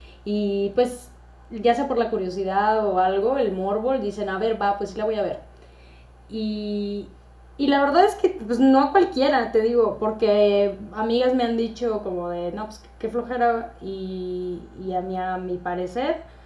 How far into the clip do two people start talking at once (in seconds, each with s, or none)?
none